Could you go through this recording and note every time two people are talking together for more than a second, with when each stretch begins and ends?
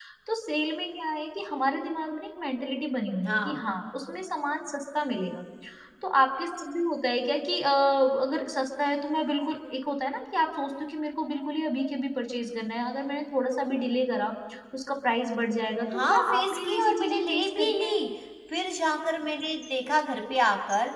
16.1-17.9

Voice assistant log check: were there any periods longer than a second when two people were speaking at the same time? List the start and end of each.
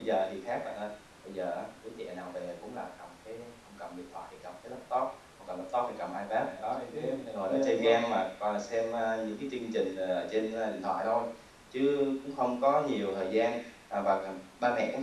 6.6-8.0

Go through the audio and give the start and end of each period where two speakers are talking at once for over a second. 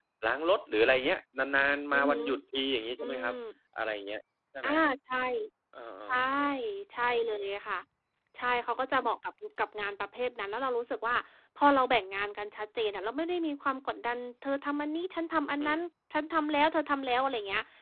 none

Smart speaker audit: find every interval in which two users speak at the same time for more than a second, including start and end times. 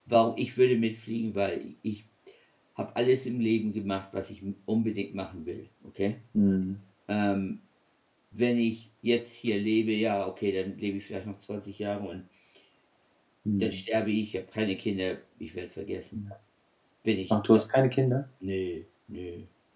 none

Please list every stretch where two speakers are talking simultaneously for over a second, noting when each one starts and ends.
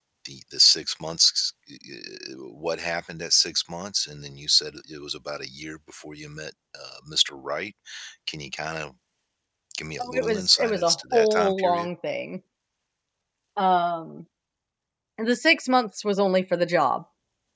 10.0-11.9

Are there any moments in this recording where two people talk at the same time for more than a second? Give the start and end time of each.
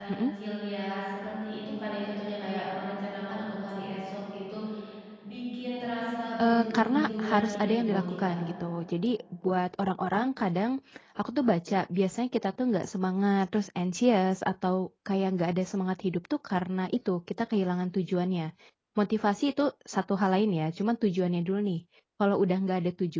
6.4-8.3

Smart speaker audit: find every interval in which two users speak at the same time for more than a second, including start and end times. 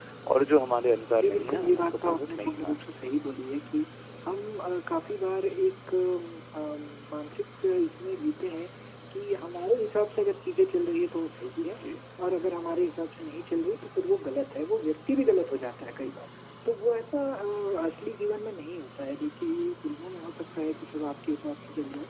1.1-2.9

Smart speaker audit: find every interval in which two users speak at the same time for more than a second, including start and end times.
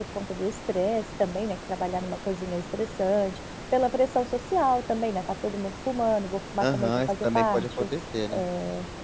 6.6-7.8

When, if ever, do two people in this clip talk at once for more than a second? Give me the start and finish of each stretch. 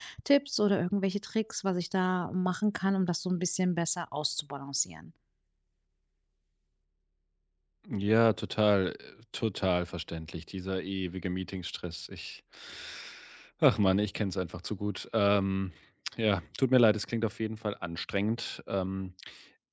none

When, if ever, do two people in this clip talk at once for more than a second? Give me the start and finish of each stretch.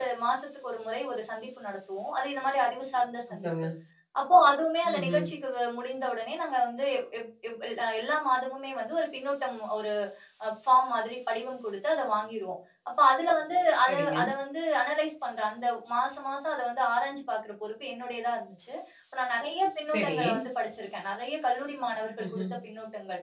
none

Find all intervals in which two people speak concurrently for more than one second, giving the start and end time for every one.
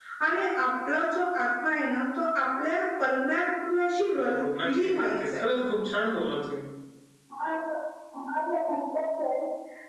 4.2-5.4

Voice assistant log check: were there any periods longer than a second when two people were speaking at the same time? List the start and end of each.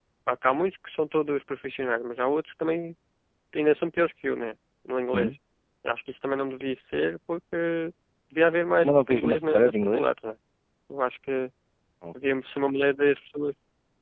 8.8-10.0

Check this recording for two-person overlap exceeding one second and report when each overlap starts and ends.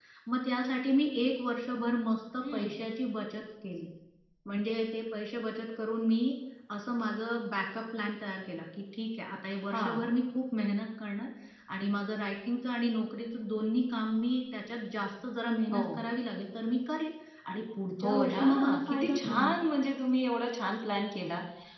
18.0-19.5

